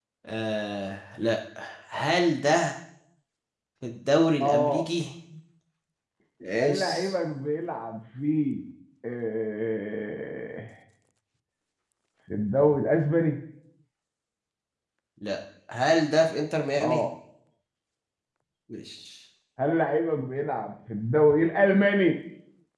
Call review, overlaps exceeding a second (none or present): none